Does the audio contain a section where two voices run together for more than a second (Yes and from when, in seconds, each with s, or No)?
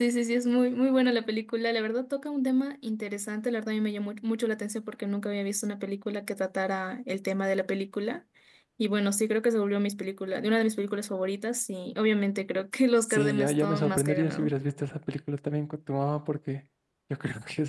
Yes, from 13.1 s